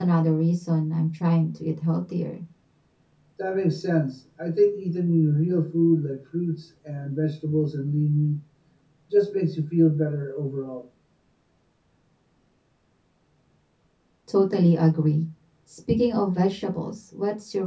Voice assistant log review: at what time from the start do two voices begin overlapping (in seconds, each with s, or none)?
none